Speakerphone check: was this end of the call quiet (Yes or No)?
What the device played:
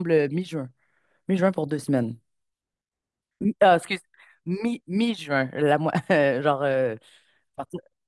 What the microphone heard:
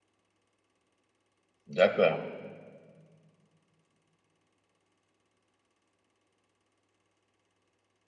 No